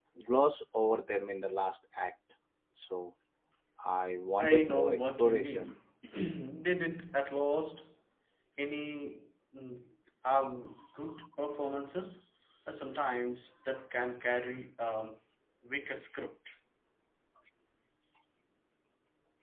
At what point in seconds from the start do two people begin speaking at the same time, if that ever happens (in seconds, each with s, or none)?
4.4 s